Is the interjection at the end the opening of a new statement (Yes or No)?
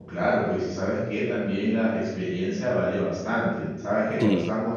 No